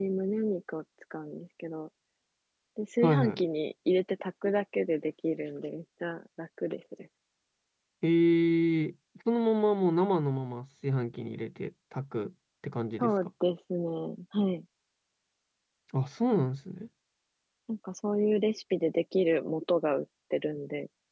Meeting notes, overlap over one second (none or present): none